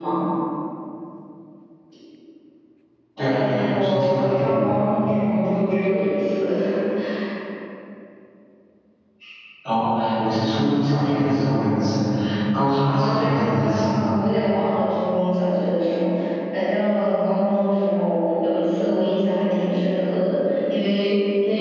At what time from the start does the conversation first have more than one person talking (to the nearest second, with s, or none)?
3 s